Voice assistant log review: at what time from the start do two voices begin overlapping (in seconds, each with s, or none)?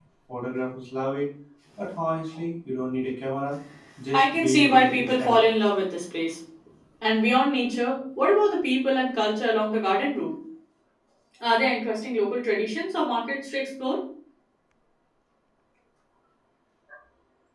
4.1 s